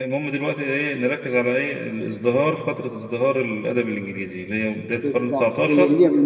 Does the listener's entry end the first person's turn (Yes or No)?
Yes